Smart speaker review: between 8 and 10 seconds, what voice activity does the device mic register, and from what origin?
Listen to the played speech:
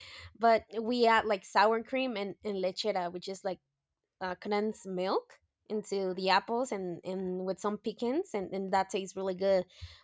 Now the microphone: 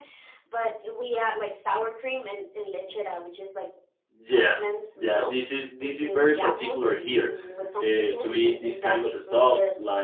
both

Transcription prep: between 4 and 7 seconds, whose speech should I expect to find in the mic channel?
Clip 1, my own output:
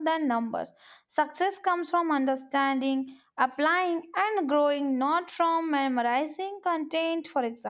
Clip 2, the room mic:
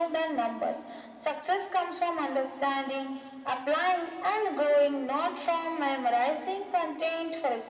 echo only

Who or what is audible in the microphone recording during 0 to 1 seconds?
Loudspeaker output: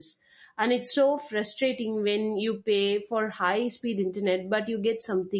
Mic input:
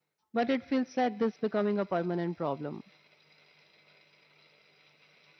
user only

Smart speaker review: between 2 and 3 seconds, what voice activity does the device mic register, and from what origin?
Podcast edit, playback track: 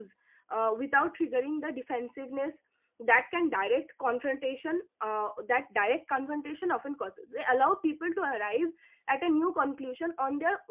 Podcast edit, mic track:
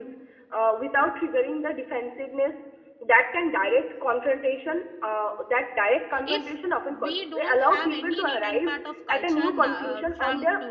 echo only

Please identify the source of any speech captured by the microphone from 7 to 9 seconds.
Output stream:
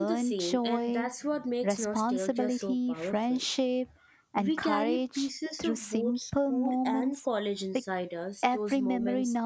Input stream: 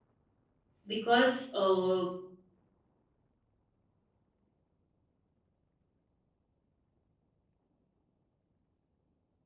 neither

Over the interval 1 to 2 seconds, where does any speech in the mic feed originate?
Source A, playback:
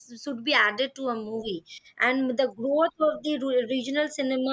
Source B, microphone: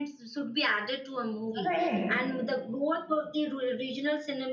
both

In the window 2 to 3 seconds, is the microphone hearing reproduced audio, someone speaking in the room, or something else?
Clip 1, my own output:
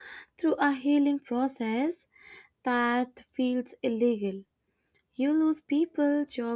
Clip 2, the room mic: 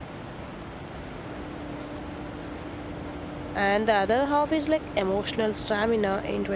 neither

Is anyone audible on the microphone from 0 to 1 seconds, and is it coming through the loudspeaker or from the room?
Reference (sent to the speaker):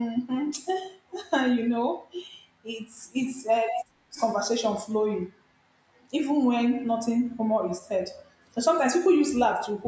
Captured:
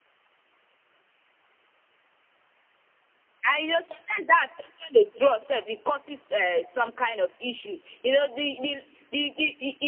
neither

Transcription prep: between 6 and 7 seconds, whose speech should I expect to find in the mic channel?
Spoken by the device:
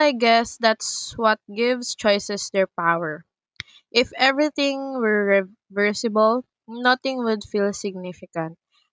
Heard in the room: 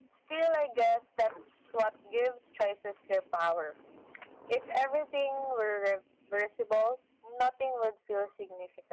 echo only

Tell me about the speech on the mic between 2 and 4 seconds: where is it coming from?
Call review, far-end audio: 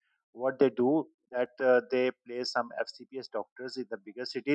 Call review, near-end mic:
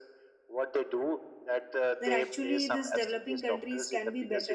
both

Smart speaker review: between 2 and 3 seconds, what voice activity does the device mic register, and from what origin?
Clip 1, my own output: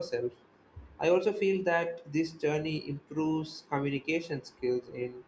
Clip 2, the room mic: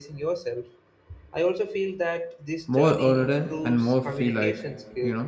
both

